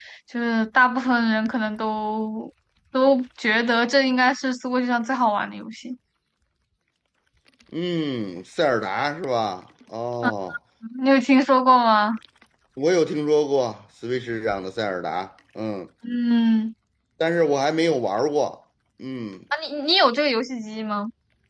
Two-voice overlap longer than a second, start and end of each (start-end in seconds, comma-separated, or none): none